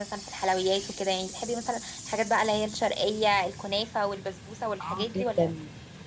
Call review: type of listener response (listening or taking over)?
taking over